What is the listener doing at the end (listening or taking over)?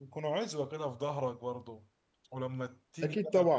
taking over